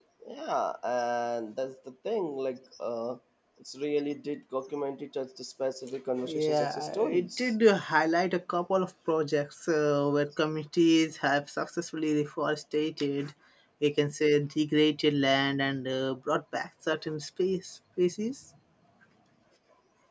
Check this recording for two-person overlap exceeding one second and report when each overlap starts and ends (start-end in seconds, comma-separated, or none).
6.2-7.5